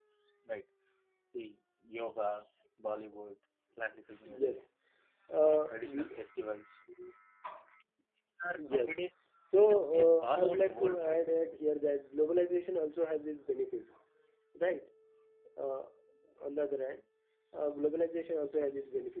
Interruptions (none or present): present